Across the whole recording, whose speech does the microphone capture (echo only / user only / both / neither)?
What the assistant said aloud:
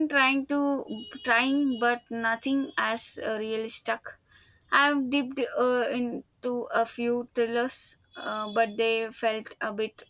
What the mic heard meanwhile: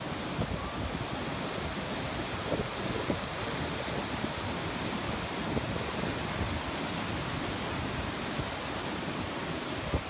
neither